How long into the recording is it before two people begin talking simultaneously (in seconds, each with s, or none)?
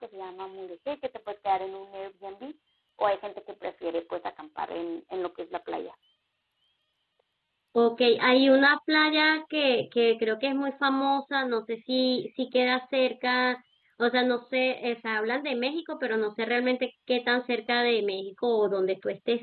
none